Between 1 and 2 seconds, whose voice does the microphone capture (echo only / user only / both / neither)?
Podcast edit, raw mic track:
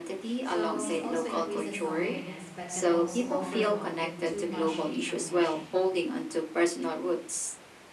both